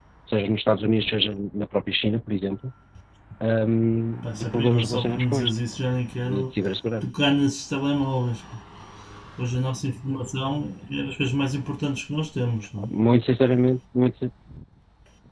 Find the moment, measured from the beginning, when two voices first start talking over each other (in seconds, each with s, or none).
4.2 s